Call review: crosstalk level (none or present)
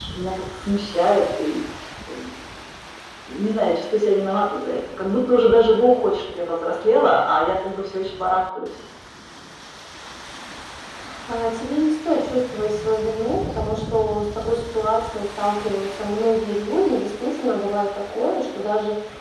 none